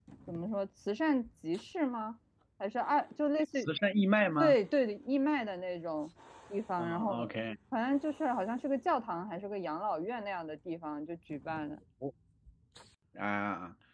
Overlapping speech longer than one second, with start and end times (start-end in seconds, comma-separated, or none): none